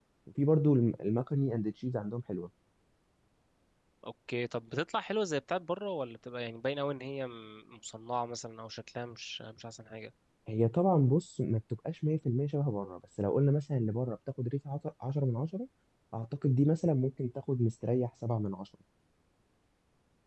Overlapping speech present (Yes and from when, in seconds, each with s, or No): No